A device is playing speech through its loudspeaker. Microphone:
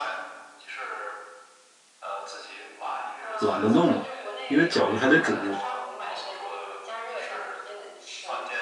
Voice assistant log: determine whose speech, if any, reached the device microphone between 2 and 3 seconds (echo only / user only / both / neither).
echo only